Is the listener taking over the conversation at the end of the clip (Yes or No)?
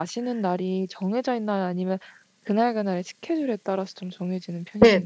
Yes